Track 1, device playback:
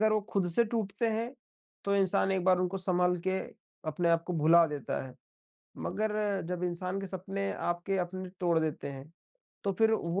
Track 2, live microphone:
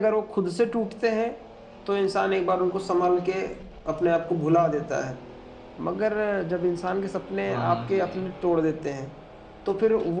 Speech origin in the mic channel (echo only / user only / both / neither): both